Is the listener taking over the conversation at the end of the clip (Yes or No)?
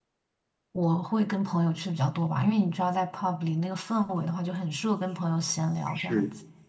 Yes